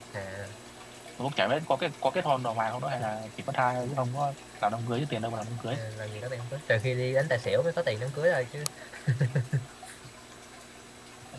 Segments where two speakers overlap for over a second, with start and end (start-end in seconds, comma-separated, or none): none